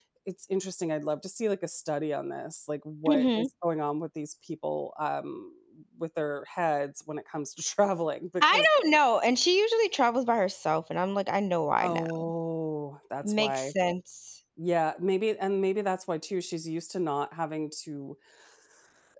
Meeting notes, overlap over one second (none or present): none